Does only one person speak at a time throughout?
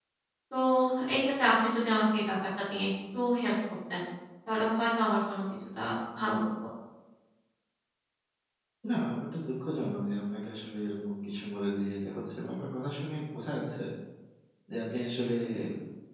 Yes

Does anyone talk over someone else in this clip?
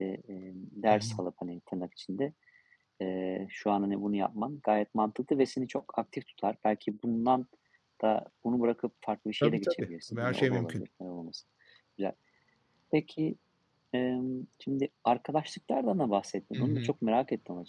Yes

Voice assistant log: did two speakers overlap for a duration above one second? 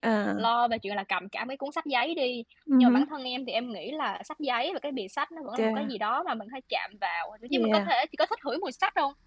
No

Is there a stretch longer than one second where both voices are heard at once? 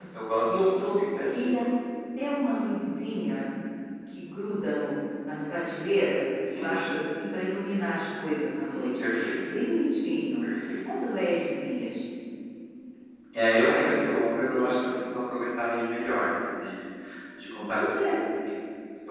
Yes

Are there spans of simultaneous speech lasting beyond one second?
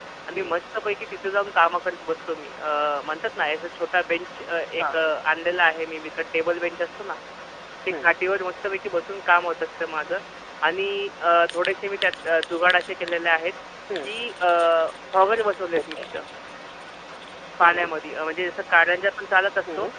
No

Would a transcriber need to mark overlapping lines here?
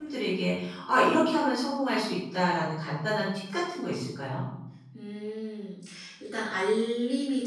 No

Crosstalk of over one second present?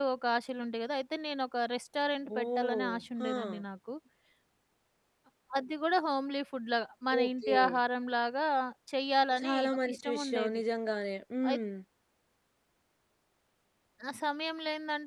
Yes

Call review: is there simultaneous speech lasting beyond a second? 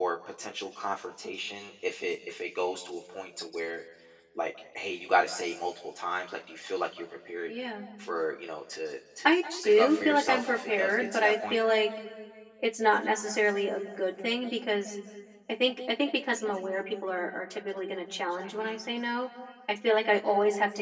Yes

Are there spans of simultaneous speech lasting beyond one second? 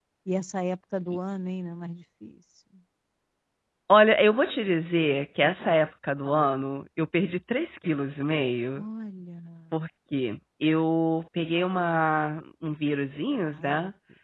No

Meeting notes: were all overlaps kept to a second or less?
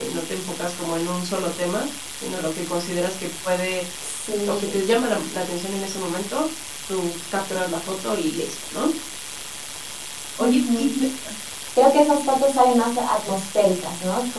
Yes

